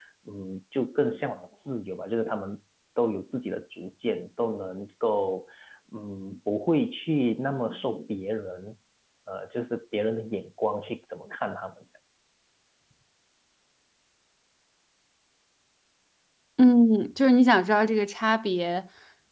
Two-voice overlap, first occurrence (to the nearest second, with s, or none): none